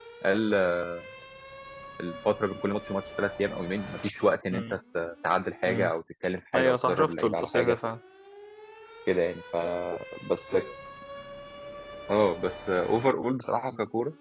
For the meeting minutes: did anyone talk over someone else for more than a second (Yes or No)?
Yes